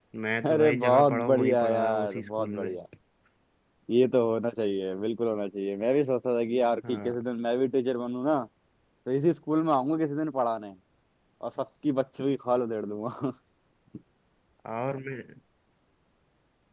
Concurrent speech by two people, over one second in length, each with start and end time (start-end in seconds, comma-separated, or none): 0.5-2.7